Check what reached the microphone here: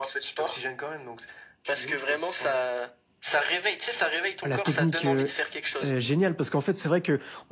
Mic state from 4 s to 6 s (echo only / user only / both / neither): both